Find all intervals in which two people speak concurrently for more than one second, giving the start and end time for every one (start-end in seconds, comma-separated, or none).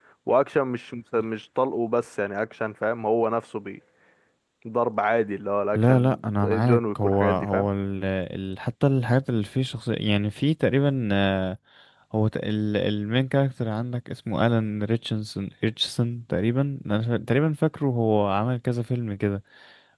5.8-7.7